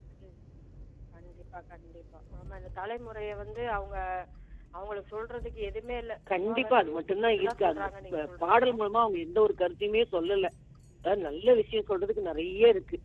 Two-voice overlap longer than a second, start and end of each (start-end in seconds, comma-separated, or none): 6.5-8.7